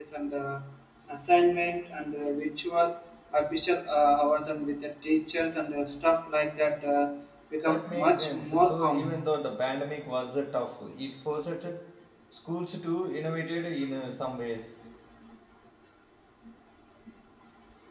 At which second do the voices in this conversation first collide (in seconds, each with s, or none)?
7.7 s